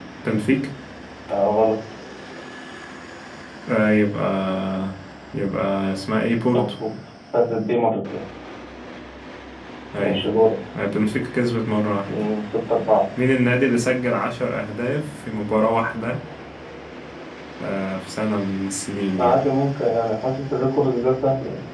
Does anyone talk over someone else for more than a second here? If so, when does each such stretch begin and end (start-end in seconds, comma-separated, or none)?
none